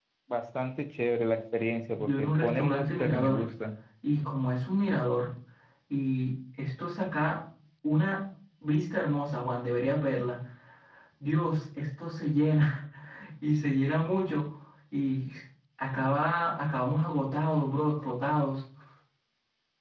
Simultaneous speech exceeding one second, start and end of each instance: 2.0-3.4

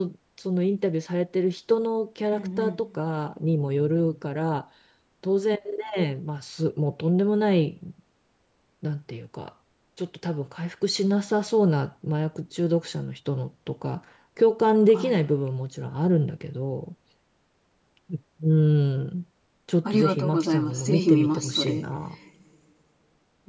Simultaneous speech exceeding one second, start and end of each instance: 19.9-21.8

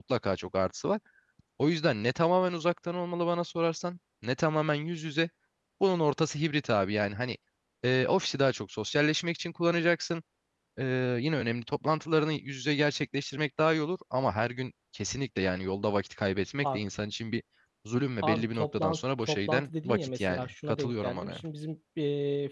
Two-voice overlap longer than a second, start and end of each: 18.2-21.4

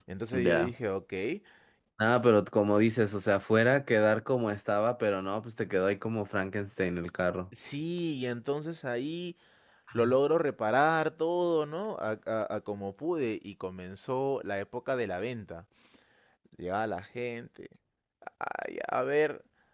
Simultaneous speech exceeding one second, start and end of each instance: none

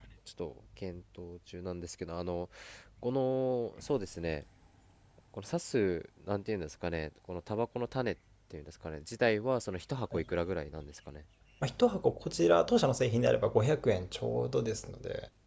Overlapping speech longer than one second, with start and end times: none

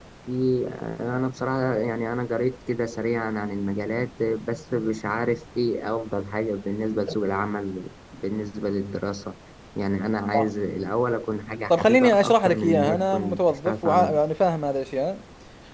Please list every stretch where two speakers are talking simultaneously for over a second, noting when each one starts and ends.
11.7-14.2

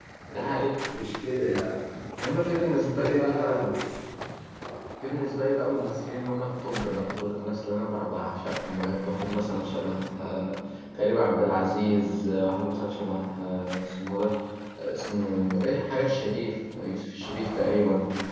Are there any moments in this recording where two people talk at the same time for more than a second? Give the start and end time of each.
2.5-3.7

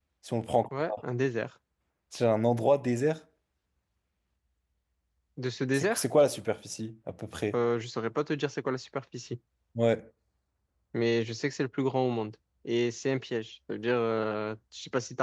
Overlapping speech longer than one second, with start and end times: none

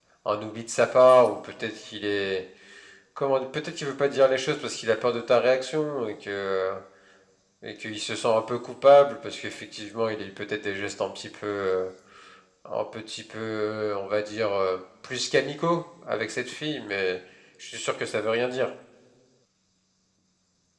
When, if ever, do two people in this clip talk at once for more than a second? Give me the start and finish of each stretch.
none

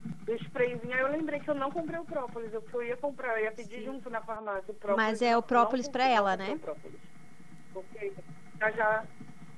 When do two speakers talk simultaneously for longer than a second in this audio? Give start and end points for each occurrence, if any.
4.9-6.6

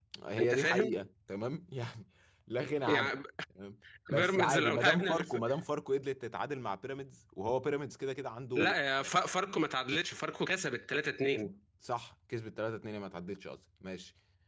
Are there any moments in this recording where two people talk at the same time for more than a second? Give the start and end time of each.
4.1-5.3

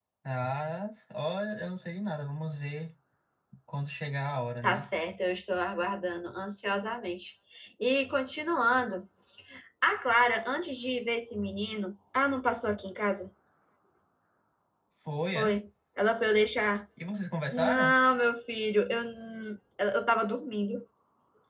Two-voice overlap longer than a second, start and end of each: none

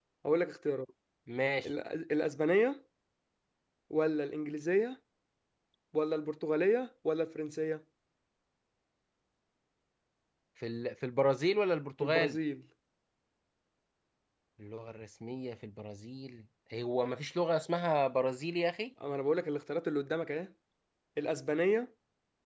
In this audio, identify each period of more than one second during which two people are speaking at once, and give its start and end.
none

